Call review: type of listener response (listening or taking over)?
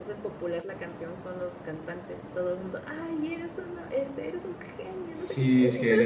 taking over